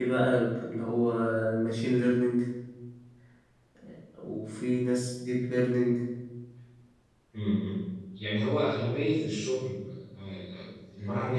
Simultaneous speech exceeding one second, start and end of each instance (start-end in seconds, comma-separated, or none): none